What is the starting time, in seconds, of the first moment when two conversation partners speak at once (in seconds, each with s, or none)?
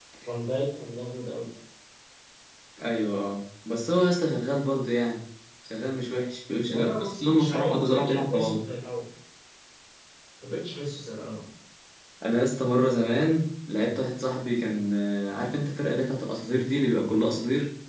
6.7 s